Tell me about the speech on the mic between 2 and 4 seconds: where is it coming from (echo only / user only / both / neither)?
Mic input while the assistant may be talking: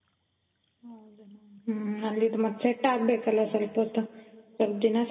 user only